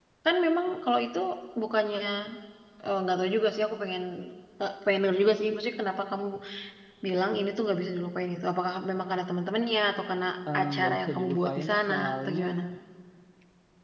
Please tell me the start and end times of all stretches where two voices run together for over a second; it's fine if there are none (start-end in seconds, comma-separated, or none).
10.6-12.4